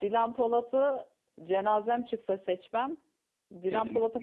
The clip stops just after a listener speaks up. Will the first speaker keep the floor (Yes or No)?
Yes